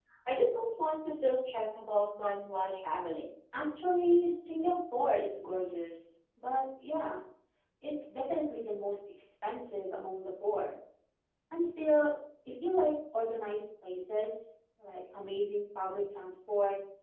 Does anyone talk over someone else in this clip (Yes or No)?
No